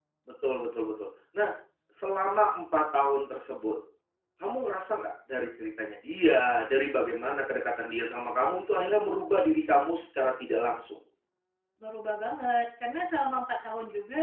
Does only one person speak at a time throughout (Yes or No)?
Yes